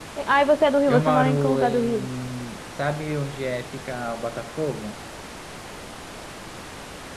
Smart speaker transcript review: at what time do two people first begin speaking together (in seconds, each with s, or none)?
0.9 s